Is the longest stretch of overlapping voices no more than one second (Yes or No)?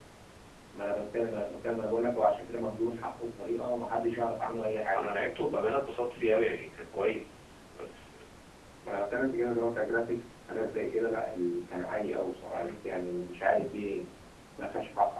Yes